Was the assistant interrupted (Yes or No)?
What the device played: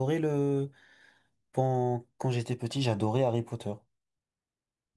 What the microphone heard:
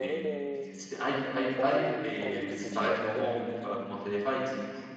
Yes